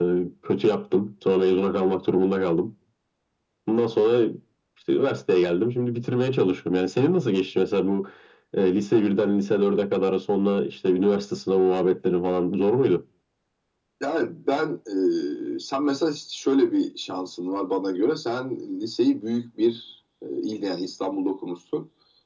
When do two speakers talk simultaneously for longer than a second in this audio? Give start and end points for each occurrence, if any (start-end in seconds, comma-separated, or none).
none